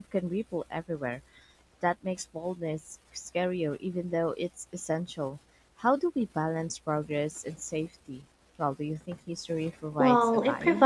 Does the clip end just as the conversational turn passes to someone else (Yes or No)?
Yes